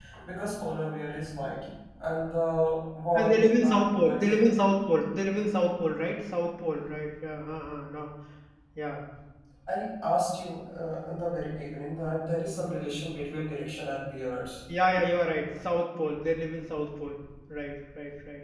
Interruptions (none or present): present